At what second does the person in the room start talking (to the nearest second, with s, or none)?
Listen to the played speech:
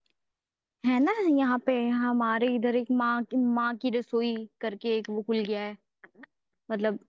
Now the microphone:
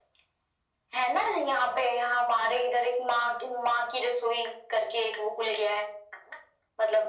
none